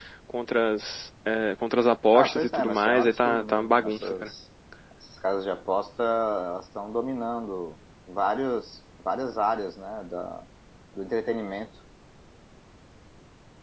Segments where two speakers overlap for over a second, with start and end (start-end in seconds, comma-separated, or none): 2.1-4.3